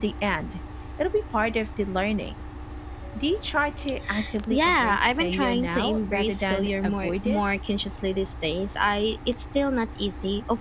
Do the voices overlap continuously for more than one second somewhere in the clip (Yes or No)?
Yes